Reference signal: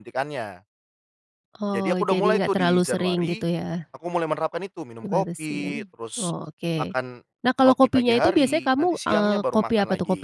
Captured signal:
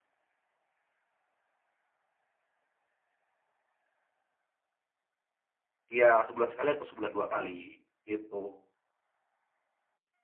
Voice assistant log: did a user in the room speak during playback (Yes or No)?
Yes